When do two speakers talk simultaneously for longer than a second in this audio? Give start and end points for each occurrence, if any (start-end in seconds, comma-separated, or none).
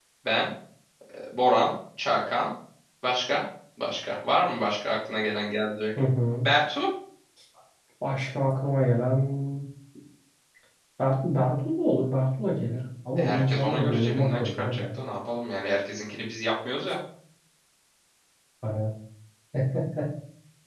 13.2-15.0